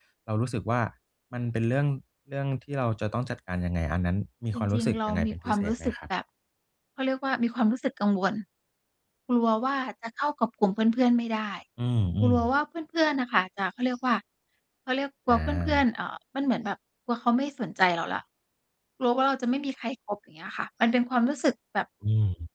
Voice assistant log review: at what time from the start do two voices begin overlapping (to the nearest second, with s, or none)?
5 s